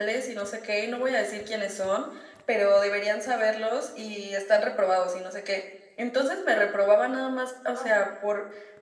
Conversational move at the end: listening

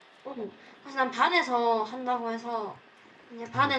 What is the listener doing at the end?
listening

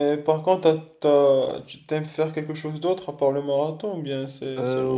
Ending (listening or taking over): taking over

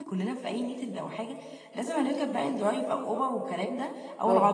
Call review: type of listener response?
listening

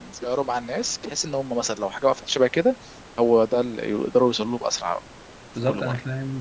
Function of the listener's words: taking over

